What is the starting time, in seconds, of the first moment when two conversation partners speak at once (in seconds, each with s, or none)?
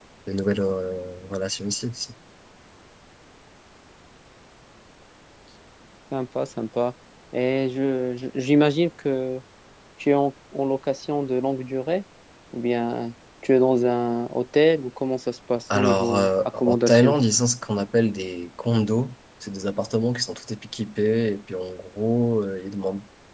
15.7 s